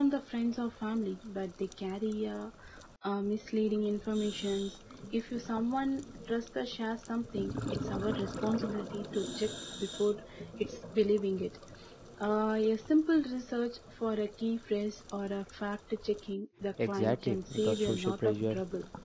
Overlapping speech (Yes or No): Yes